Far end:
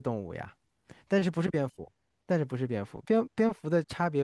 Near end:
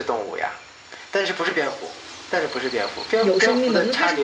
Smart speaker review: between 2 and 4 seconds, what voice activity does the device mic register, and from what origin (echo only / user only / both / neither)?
both